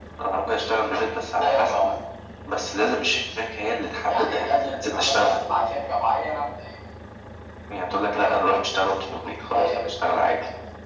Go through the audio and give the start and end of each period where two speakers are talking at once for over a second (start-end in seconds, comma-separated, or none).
4.1-5.4